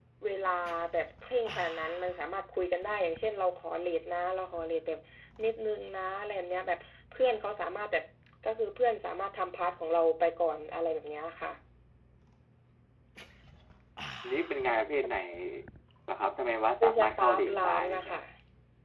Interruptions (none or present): present